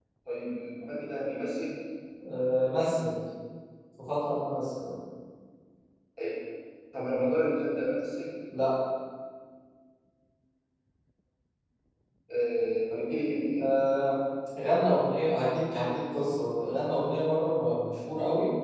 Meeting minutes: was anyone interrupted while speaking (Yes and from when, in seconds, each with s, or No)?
No